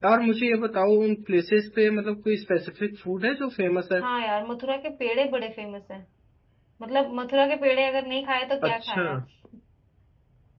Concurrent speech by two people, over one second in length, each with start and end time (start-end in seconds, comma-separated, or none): none